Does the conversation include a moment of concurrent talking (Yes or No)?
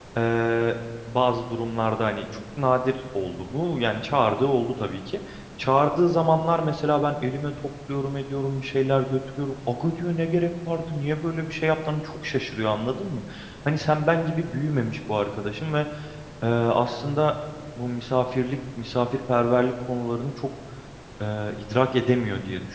No